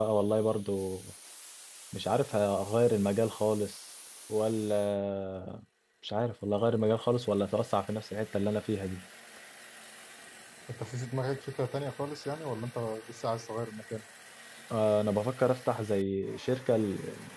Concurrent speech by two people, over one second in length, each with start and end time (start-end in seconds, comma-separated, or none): none